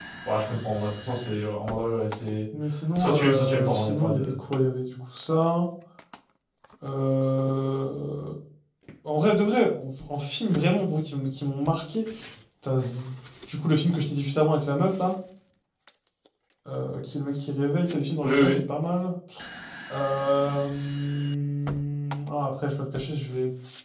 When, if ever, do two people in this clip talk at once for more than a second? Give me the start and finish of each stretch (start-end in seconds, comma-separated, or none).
3.0-4.3